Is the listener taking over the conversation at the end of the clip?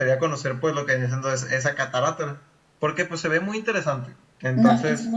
Yes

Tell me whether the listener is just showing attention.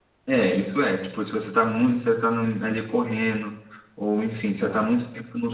Yes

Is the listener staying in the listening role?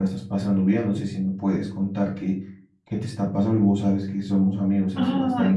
Yes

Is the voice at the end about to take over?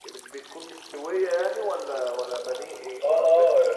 Yes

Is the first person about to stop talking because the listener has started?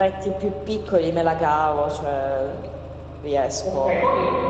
Yes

